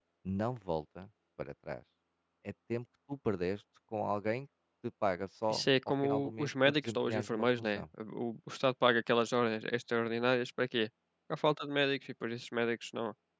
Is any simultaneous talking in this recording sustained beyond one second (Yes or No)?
Yes